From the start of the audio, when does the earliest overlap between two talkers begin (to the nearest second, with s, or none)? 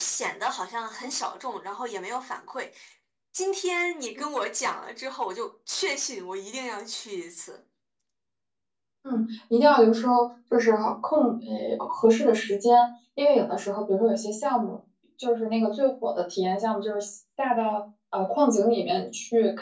none